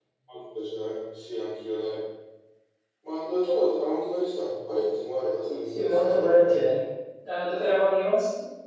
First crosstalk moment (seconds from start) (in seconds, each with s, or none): 5.4 s